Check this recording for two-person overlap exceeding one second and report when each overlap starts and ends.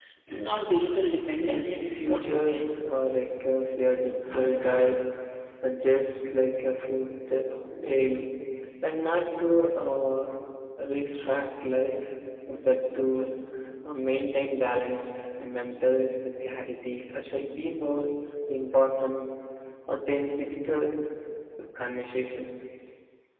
1.4-2.6

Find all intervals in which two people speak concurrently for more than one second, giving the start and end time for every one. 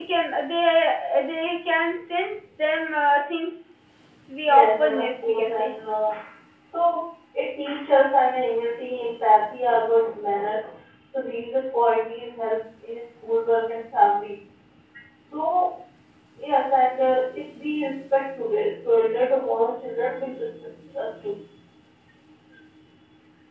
4.5-5.7

